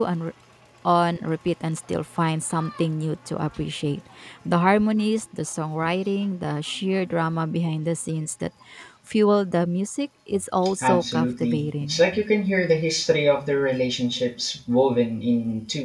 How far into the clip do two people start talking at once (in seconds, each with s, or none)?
10.8 s